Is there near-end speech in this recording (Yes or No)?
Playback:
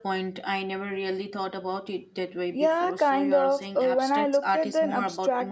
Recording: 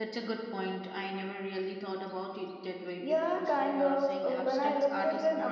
No